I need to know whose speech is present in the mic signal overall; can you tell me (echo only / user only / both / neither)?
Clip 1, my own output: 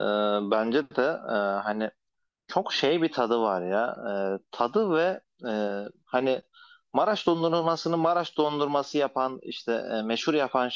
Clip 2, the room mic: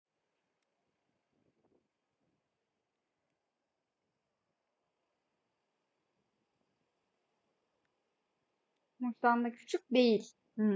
user only